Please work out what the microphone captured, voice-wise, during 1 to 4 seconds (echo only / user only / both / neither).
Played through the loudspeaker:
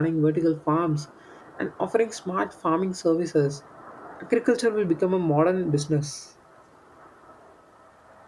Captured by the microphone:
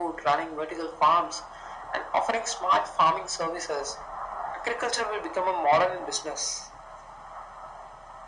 echo only